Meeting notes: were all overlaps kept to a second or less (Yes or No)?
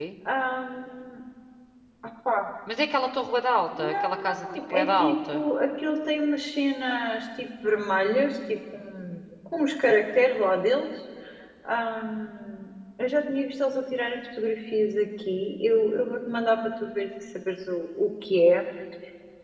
No